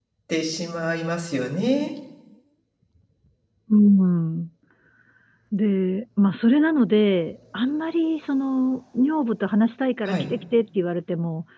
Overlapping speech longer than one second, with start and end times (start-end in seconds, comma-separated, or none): none